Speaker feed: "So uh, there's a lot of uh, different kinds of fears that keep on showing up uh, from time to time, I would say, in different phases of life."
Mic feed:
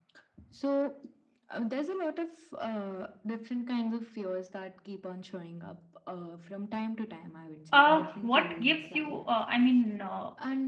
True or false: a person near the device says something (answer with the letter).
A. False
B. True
B